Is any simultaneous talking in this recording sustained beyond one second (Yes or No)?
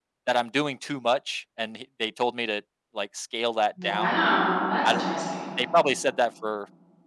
No